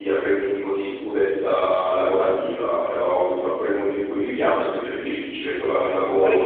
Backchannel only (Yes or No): No